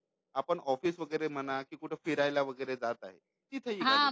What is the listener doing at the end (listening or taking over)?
taking over